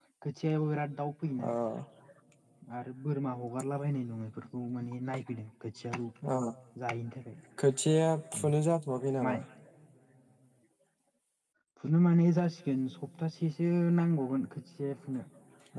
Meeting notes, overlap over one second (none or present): none